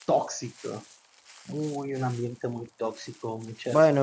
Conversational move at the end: taking over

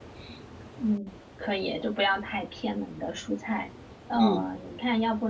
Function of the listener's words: listening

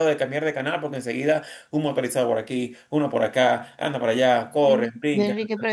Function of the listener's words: taking over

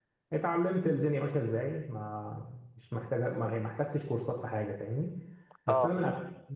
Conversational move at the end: listening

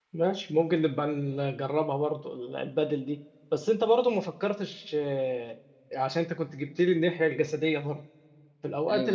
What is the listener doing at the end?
listening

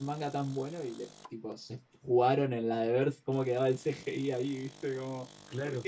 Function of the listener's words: taking over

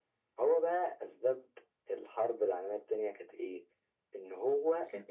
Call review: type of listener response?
listening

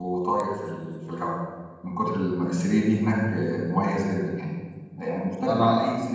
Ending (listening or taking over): listening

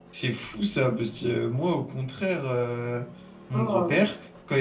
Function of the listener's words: listening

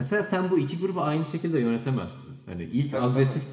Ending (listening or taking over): listening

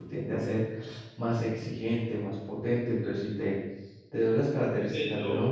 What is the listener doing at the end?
listening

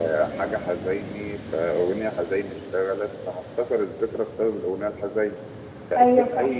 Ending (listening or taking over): listening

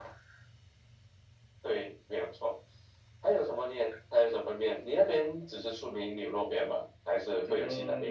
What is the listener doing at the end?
taking over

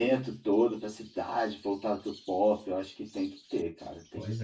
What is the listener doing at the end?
taking over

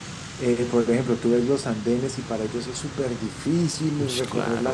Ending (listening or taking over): listening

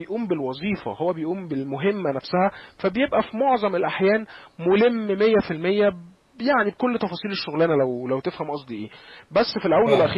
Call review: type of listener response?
listening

